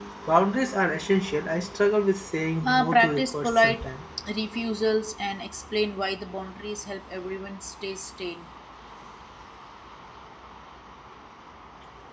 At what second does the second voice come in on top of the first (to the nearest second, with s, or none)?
3 s